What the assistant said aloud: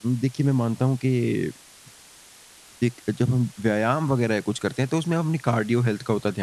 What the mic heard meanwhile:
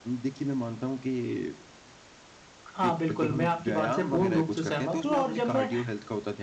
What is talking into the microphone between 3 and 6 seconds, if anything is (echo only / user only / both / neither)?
both